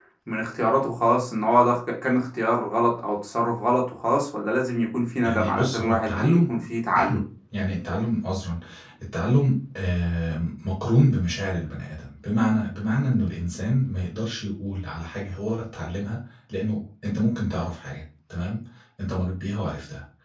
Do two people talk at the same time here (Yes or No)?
Yes